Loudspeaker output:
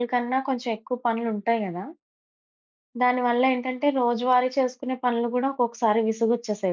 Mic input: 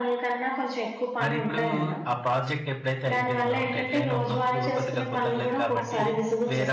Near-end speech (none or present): present